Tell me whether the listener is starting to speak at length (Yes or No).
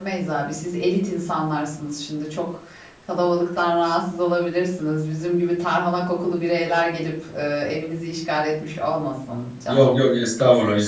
Yes